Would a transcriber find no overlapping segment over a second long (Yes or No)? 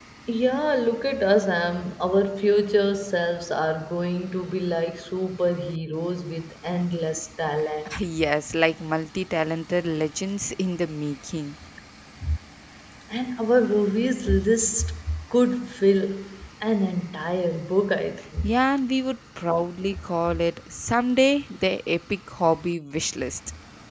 Yes